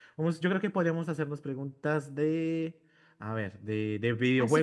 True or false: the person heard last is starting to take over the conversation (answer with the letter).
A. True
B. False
A